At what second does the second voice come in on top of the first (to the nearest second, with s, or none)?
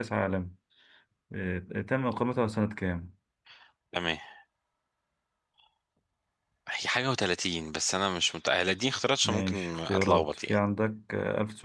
9 s